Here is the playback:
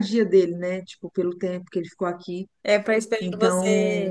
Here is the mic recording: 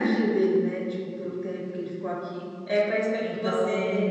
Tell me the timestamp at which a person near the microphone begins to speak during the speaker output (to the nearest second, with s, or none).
none